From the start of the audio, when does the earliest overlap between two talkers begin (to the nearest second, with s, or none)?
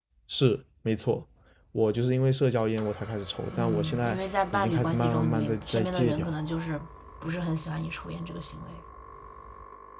4 s